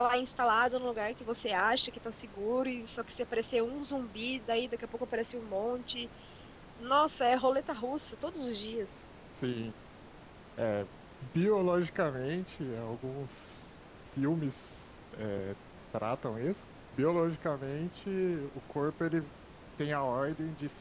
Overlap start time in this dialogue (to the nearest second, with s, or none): none